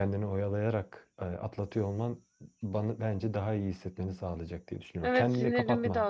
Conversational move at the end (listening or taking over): taking over